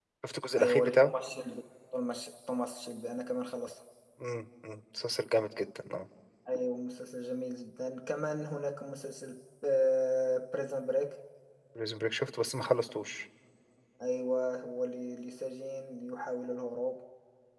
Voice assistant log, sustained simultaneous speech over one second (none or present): none